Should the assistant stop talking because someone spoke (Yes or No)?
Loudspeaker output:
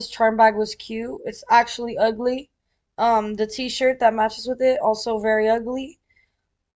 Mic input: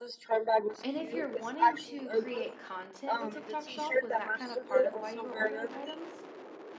Yes